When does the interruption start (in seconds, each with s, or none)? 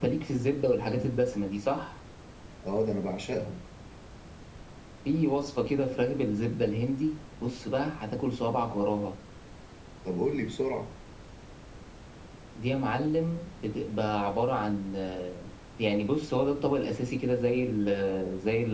none